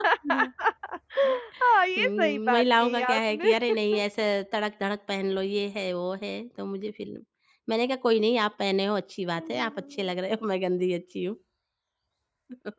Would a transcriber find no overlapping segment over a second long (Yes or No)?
No